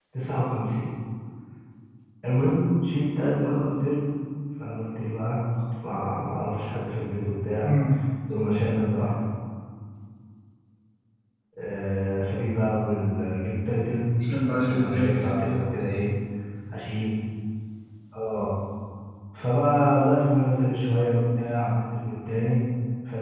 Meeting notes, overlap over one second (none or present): present